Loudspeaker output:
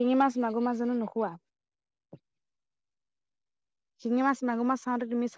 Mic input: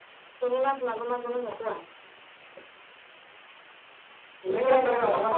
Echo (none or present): present